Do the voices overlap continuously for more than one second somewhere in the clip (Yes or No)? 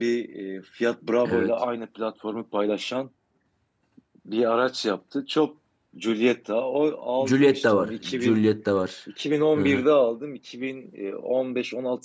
Yes